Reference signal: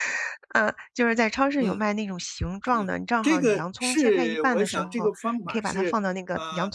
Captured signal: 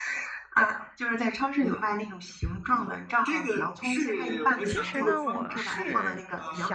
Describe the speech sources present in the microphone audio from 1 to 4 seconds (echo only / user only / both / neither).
echo only